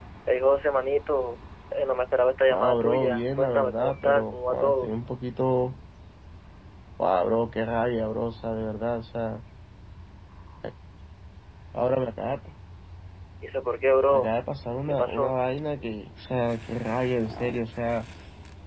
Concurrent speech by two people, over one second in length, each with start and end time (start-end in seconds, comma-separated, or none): 2.5-4.9